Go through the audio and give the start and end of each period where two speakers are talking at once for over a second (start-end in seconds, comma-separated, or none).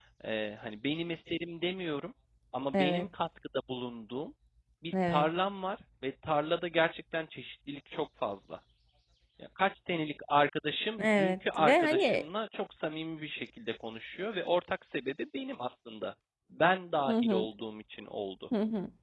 11.0-12.2